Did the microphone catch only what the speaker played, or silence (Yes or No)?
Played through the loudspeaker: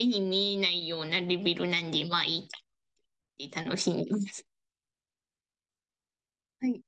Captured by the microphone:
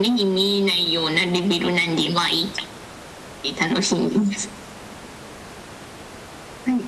Yes